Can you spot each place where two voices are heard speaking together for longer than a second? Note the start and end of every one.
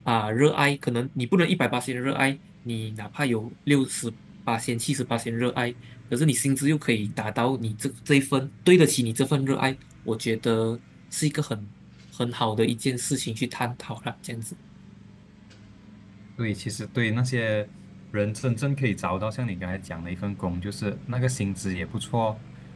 none

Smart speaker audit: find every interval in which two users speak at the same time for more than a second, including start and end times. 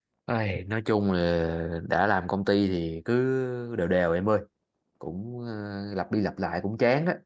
none

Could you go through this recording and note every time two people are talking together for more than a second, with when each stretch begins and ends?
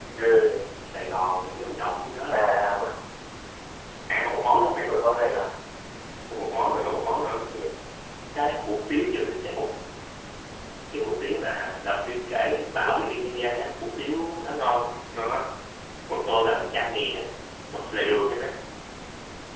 none

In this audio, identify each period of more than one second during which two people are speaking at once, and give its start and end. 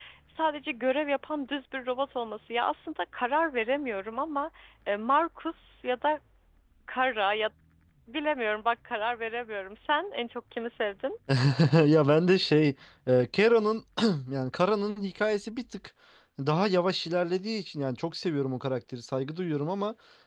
none

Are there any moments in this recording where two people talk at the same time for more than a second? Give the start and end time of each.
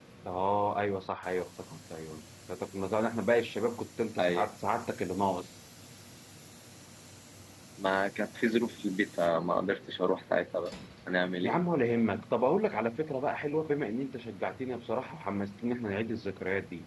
none

